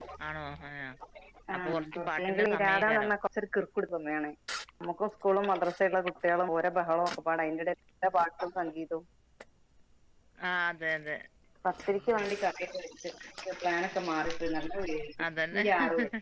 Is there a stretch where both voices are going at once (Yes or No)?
Yes